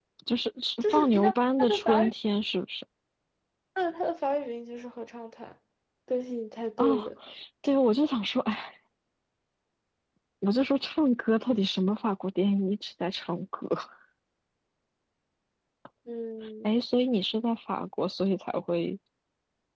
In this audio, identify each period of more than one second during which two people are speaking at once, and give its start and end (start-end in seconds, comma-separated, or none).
0.8-2.1